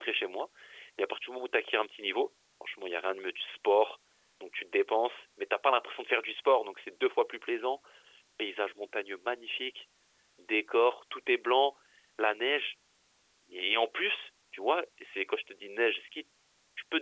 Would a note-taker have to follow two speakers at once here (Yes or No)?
No